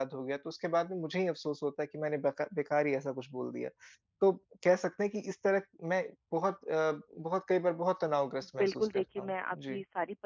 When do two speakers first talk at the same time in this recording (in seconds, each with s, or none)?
8.4 s